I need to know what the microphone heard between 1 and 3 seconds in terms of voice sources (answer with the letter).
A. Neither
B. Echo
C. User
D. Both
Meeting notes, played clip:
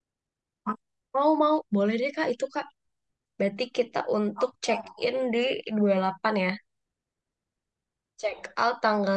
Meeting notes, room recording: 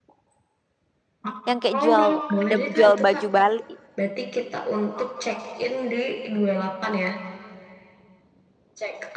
D